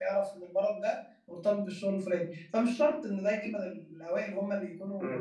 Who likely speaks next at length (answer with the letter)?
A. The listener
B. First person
A